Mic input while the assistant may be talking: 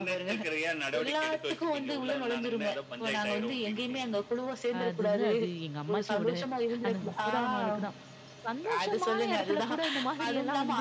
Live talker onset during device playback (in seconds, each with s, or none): 4.8 s